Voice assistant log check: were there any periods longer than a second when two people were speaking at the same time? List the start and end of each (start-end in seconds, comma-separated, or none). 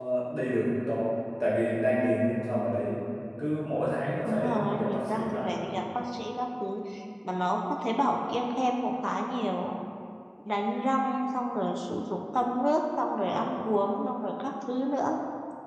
4.2-5.7